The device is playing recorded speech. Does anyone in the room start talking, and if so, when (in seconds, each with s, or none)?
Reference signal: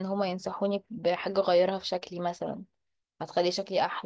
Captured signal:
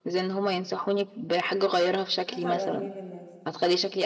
2.2 s